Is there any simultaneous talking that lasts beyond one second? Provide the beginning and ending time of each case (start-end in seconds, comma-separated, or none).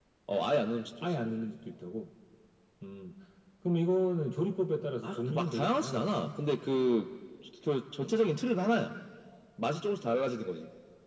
5.0-6.3